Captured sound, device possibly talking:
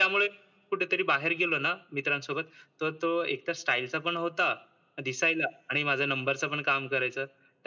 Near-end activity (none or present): none